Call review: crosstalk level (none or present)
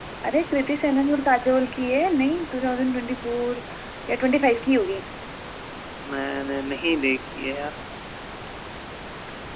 none